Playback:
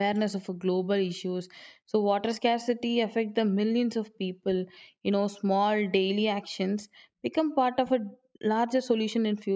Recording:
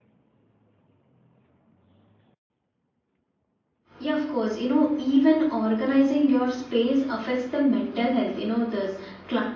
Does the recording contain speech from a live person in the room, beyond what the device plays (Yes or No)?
Yes